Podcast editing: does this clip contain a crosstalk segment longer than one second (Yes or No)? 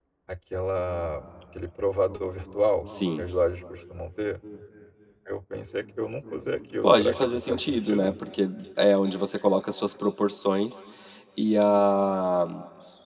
Yes